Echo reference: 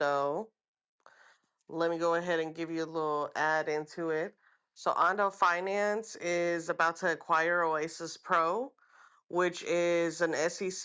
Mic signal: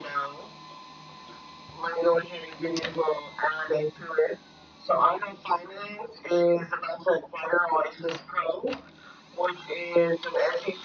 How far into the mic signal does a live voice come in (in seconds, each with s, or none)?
none